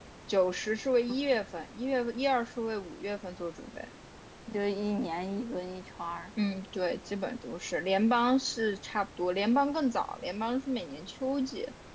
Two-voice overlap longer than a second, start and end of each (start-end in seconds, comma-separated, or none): none